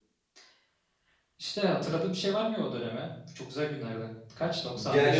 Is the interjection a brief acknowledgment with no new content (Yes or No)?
No